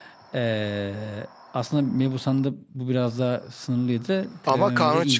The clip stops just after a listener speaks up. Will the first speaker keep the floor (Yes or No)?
No